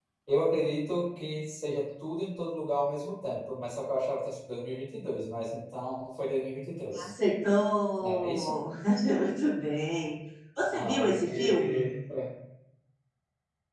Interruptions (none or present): present